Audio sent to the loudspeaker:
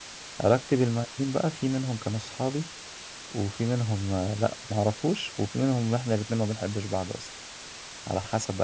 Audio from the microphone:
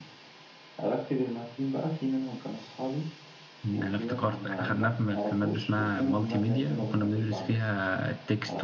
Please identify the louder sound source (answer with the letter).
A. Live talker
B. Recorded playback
A